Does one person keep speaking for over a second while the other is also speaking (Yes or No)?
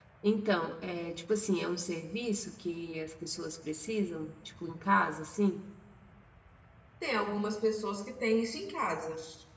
No